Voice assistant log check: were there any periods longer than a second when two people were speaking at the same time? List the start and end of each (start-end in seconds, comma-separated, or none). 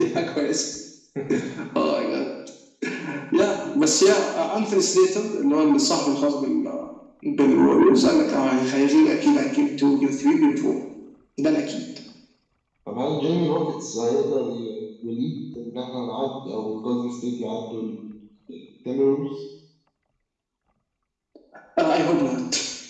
none